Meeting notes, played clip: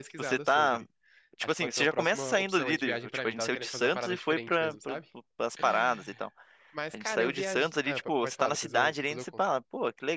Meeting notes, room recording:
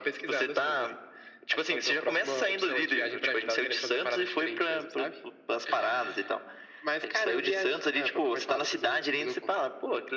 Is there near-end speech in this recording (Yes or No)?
No